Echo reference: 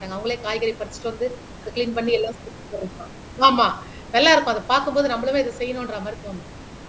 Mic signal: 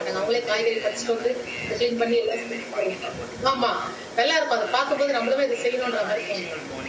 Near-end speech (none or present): present